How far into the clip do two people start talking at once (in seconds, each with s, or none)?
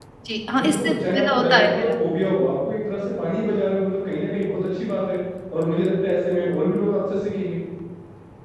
0.6 s